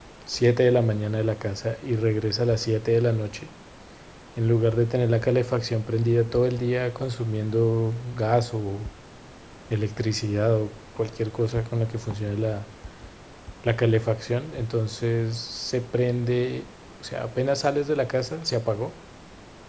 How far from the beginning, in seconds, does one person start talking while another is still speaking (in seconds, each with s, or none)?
none